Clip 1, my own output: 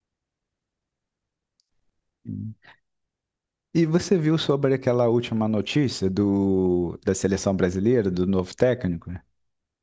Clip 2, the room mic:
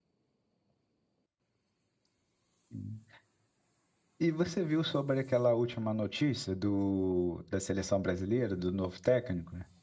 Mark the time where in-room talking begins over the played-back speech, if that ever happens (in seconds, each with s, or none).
none